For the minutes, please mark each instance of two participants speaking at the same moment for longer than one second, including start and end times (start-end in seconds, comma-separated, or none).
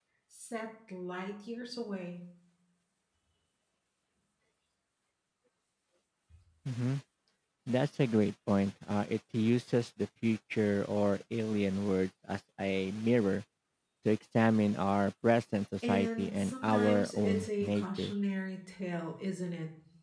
15.9-18.1